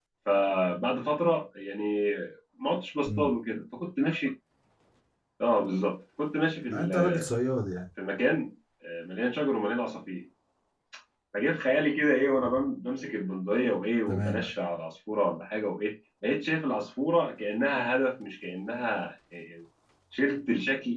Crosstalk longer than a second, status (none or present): none